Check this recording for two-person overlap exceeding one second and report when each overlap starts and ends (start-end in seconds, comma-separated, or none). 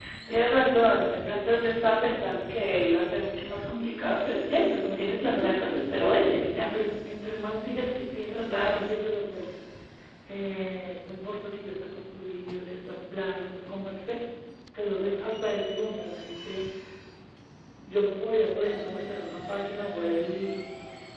4.5-5.8